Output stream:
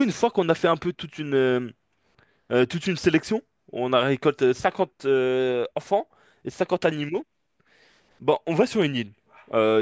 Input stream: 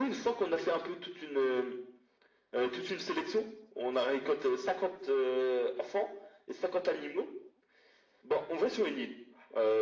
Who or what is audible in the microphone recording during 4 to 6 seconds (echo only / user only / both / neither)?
echo only